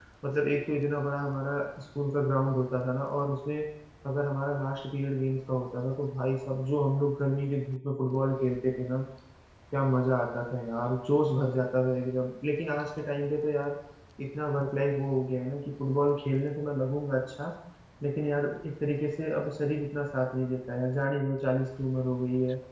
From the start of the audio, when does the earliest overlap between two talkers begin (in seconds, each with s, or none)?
none